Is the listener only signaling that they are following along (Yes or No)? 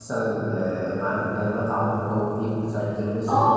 No